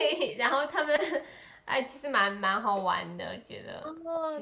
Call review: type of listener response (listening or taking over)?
taking over